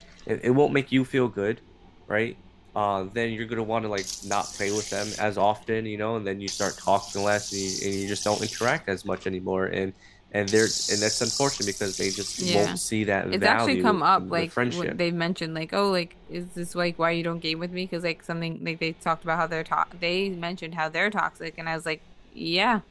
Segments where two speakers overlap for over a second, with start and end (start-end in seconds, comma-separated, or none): 13.3-15.0